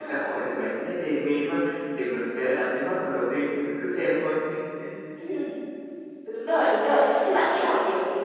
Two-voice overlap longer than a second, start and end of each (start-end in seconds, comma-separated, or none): none